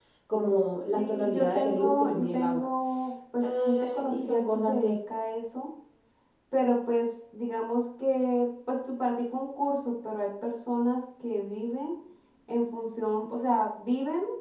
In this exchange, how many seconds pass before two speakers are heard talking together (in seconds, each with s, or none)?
0.9 s